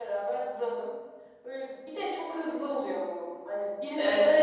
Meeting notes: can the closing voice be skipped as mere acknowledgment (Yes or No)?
Yes